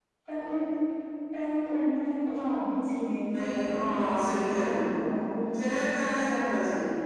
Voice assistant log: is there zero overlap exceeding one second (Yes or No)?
No